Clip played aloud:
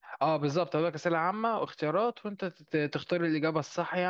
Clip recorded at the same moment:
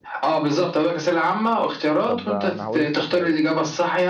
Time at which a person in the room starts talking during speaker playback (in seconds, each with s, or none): 2.0 s